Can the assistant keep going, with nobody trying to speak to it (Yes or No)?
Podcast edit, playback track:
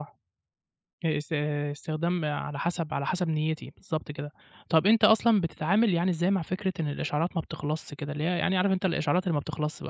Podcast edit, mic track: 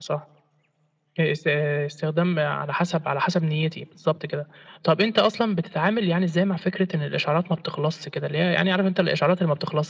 Yes